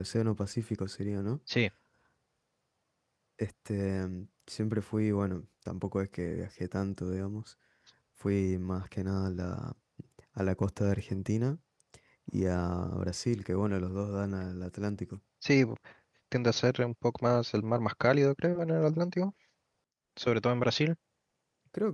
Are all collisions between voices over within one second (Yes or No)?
Yes